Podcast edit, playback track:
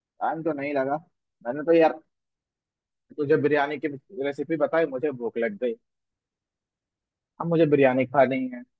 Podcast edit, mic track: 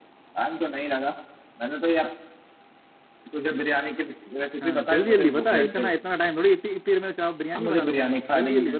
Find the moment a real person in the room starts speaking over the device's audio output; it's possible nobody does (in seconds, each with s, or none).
4.6 s